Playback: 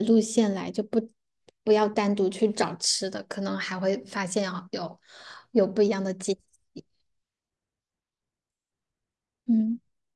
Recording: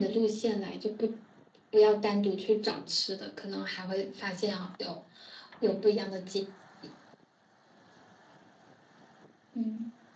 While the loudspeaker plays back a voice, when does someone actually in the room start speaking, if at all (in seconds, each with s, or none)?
none